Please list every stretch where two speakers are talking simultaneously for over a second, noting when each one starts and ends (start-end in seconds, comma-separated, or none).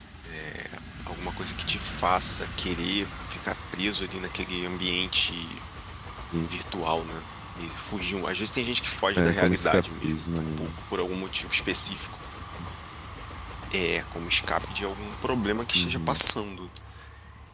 9.2-10.7